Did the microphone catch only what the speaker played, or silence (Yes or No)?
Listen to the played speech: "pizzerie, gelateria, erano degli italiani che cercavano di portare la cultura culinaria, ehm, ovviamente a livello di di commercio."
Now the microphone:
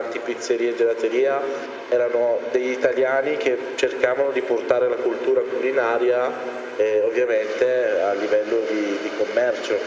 Yes